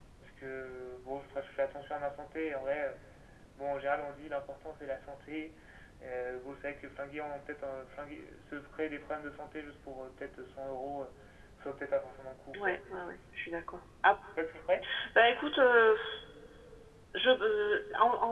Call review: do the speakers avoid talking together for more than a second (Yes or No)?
Yes